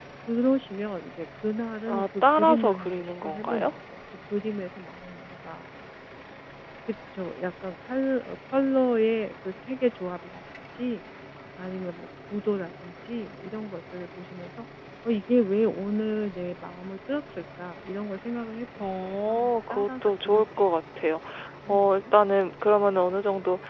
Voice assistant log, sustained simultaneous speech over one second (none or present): present